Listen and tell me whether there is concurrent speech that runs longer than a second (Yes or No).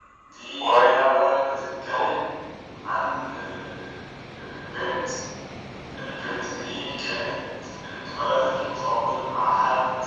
Yes